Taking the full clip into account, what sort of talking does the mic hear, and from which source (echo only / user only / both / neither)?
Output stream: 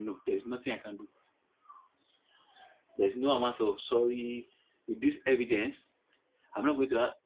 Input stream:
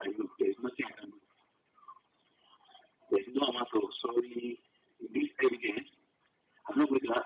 echo only